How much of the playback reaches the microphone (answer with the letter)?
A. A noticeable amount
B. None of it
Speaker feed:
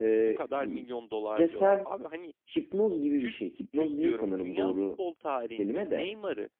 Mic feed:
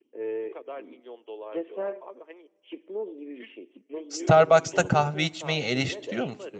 A